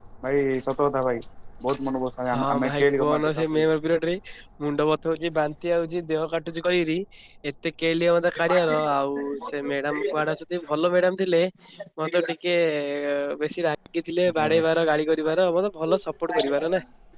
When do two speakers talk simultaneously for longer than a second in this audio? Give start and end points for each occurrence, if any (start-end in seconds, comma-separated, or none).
2.3-3.7